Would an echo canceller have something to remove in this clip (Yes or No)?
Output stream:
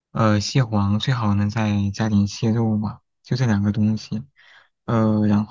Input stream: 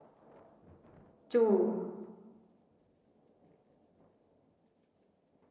No